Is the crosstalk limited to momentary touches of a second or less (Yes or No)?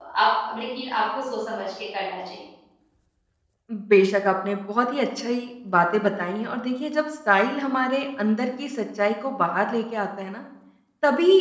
Yes